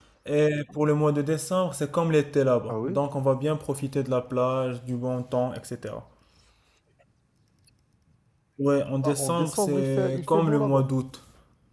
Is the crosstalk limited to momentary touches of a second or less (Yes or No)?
No